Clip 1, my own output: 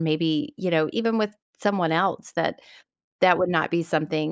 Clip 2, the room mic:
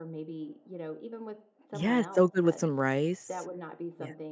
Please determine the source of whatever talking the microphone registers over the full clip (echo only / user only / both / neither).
both